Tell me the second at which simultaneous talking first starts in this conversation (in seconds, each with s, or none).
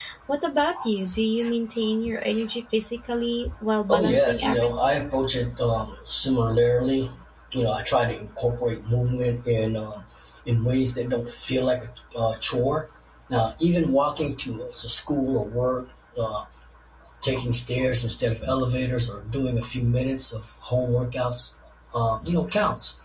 3.9 s